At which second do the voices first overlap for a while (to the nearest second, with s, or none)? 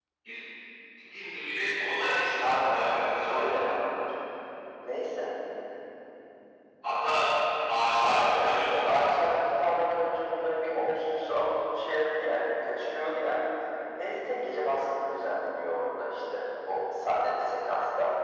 2 s